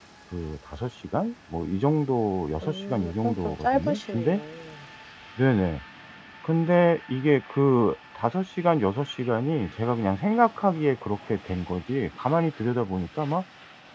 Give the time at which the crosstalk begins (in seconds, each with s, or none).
2.6 s